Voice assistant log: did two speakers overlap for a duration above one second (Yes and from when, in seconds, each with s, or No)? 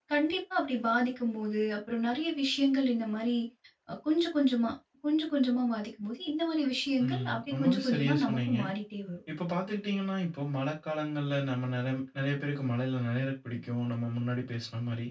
Yes, from 7.0 s